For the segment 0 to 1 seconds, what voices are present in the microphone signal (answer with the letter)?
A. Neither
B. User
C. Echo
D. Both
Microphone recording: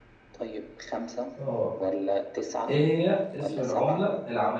C